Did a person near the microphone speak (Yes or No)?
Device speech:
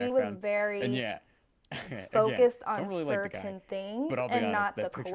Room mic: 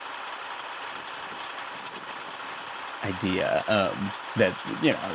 Yes